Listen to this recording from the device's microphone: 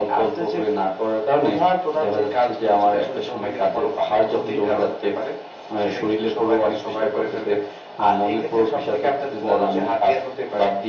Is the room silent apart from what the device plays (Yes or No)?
Yes